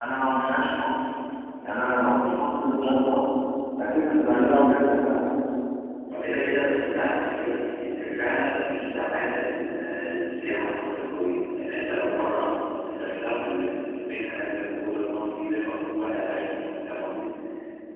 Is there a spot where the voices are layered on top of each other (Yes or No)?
No